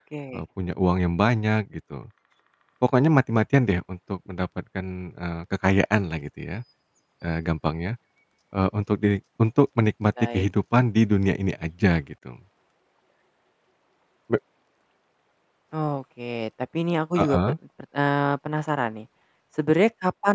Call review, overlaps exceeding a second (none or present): none